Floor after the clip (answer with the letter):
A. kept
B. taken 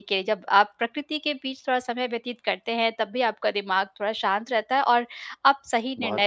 A